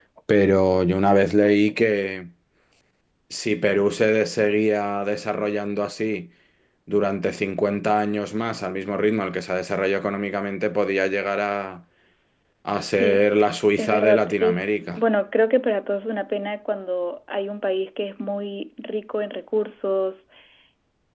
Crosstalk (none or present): present